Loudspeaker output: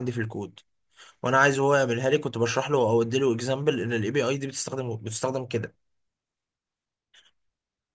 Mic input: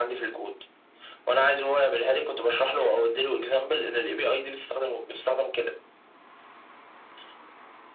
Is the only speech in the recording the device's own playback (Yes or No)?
Yes